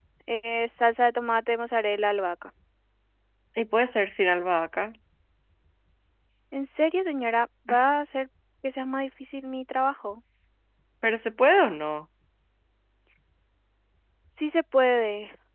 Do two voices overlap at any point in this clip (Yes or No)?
No